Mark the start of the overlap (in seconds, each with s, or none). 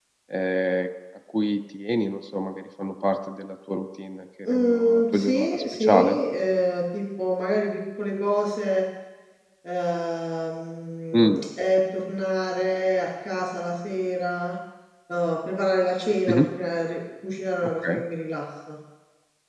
4.5 s